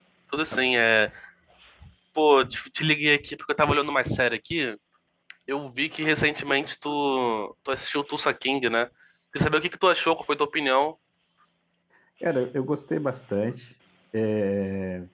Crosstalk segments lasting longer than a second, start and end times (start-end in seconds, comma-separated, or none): none